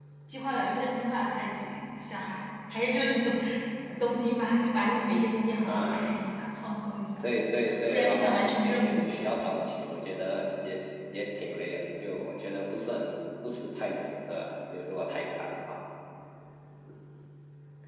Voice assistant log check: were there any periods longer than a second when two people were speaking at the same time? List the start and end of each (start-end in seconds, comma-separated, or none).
7.9-9.1